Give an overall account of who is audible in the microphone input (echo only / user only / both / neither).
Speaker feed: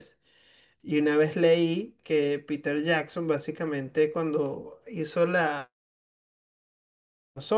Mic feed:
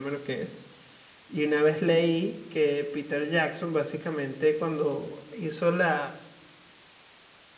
echo only